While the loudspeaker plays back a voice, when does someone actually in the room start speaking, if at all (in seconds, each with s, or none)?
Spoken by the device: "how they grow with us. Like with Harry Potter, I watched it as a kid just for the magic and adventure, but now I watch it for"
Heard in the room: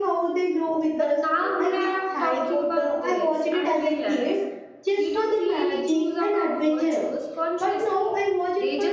0.9 s